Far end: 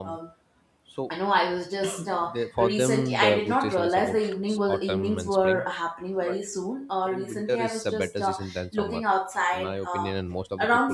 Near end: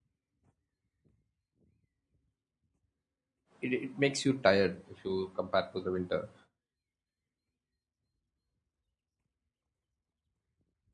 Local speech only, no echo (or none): it, it makes you tired if you compare to the winter